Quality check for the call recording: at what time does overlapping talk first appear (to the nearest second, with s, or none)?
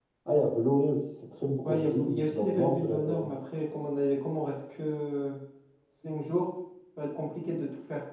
2 s